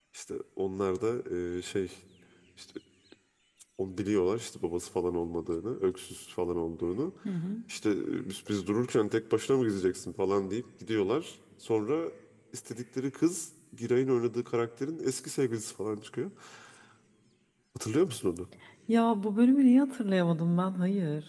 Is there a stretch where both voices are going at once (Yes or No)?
No